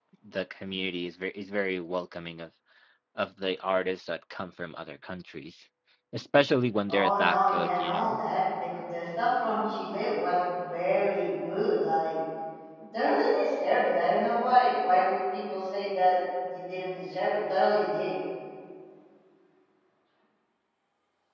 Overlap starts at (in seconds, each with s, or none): 6.9 s